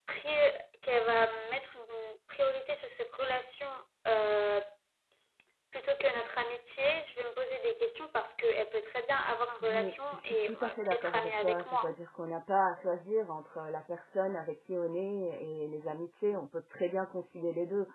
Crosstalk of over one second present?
Yes, from 9.6 s

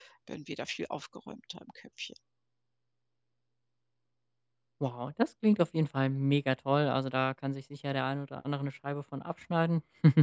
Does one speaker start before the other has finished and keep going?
No

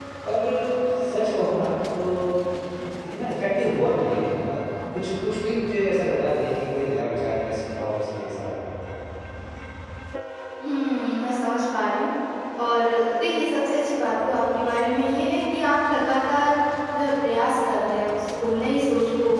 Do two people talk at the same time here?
No

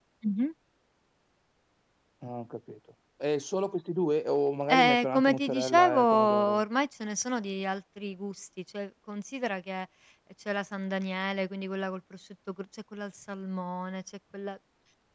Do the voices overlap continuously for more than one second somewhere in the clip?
Yes, from 4.7 s

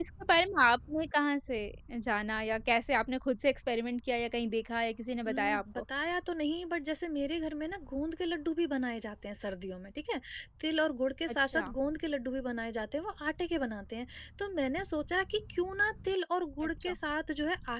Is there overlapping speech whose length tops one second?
No

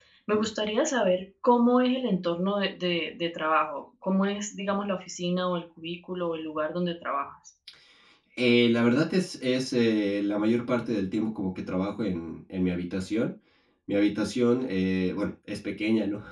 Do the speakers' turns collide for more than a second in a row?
No

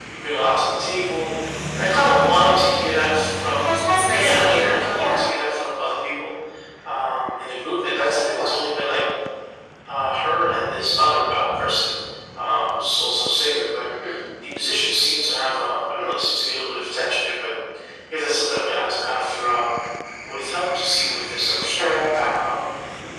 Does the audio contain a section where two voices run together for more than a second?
Yes, from 4.1 s

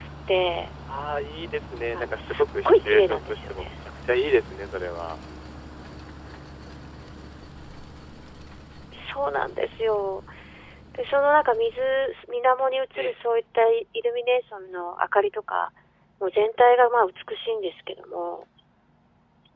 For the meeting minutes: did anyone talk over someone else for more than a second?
Yes, from 1.9 s

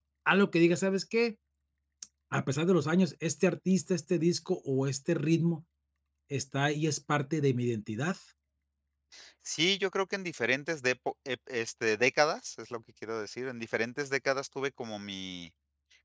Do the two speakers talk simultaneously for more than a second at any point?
No

